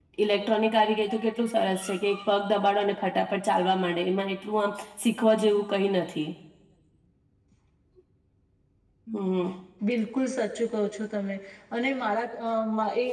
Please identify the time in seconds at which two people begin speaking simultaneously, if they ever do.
none

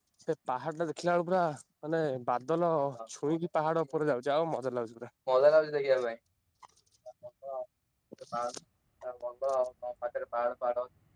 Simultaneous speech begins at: none

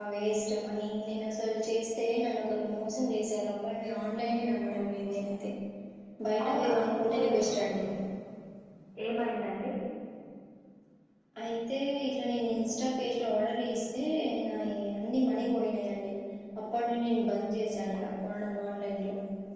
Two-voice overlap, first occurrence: 6 s

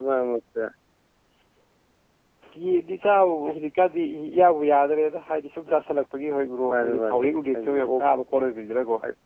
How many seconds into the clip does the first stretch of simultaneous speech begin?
7 s

